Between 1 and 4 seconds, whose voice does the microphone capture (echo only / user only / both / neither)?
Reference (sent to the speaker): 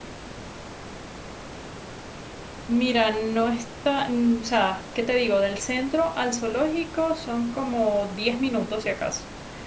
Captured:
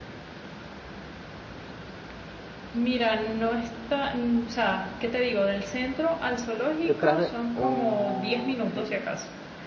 echo only